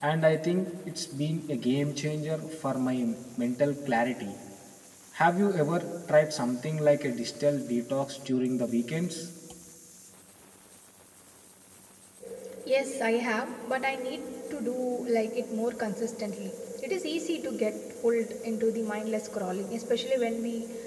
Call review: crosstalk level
none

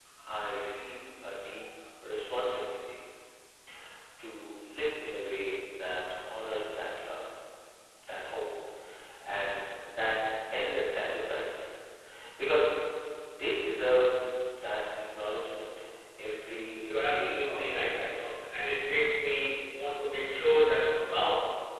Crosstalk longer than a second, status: present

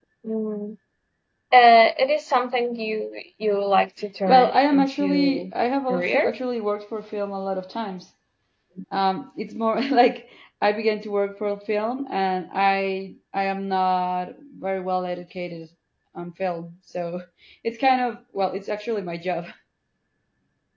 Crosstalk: present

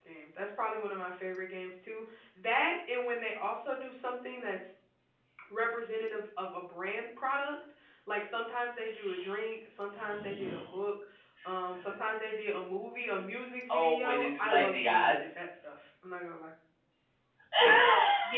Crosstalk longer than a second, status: present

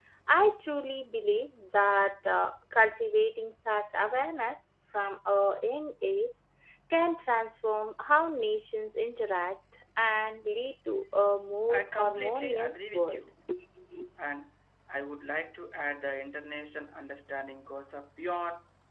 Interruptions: present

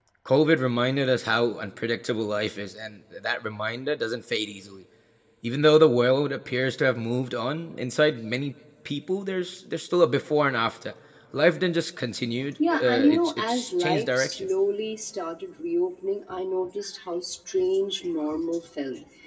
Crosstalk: present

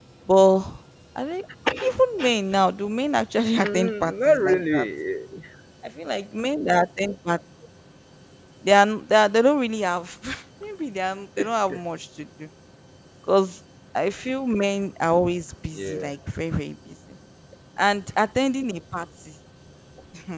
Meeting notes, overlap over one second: present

